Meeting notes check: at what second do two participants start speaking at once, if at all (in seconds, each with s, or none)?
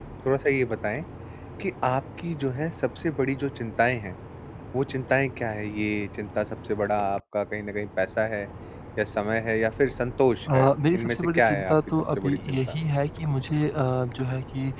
10.5 s